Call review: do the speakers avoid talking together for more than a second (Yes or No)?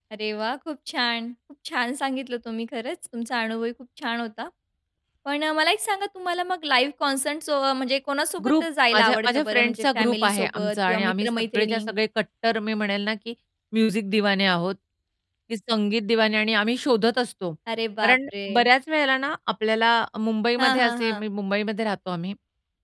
No